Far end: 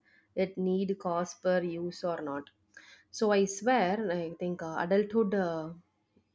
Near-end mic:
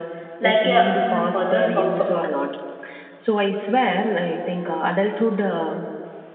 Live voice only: like a mm, puzzles also

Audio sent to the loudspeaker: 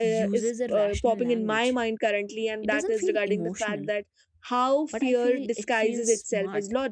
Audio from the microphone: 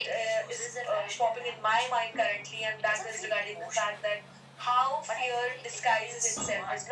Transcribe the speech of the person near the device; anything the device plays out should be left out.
none

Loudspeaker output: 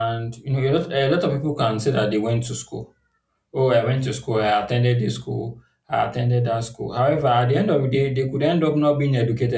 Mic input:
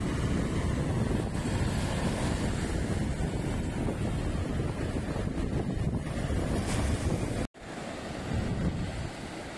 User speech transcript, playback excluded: none

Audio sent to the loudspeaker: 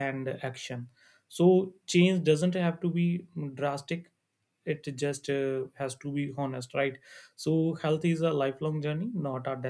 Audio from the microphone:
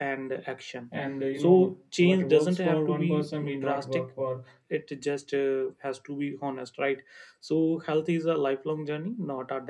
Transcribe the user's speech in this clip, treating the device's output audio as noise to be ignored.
and uh, you know what works for one person may not work for

